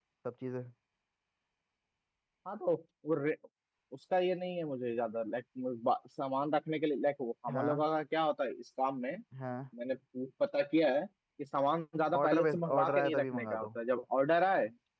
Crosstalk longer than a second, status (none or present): present